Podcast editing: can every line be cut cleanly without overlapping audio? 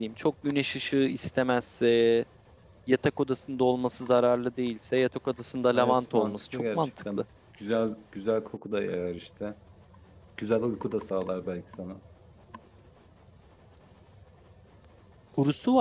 No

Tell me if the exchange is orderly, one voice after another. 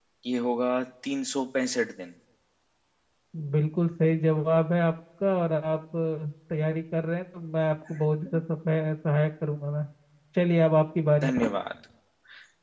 Yes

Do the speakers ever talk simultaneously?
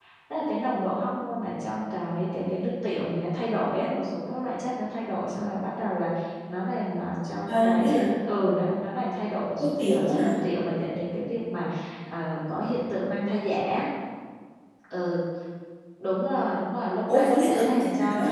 Yes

